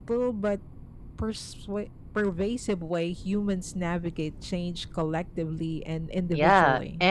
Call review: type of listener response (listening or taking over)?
taking over